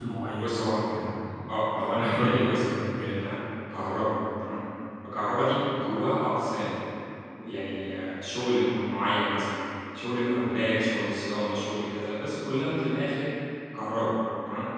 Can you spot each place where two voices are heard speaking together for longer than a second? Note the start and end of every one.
2.0-3.2

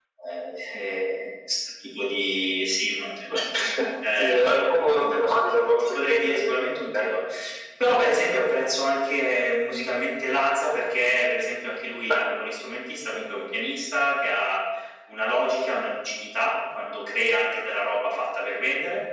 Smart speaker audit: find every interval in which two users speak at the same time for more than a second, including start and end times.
4.2-6.3

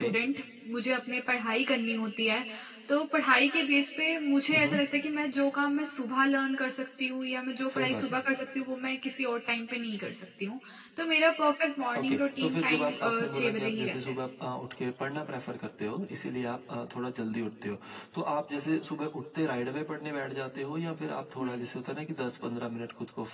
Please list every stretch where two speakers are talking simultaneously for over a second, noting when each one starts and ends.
12.0-13.9

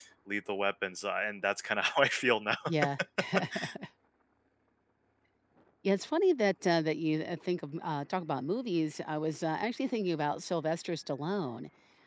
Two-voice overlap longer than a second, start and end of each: none

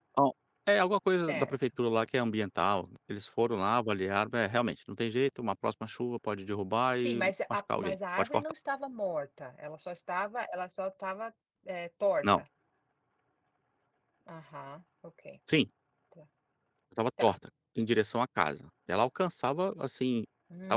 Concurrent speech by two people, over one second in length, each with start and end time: 7.0-8.4

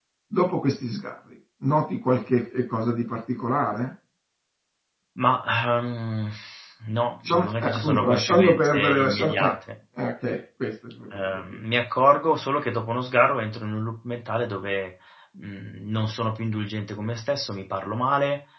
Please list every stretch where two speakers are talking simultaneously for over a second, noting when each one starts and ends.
7.2-9.5

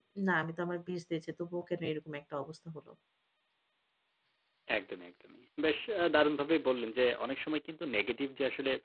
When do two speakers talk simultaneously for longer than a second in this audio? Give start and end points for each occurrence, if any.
none

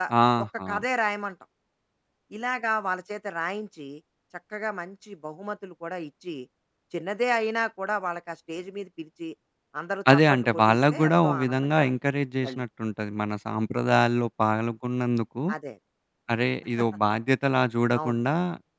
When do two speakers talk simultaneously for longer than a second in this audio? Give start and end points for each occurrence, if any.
10.1-11.8

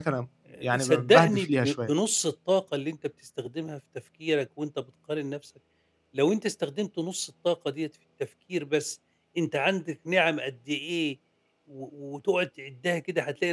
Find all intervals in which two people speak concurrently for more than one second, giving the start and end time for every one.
0.6-1.9

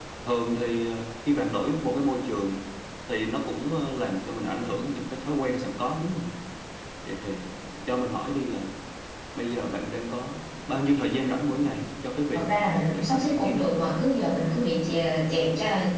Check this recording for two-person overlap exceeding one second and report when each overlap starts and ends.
12.3-13.7

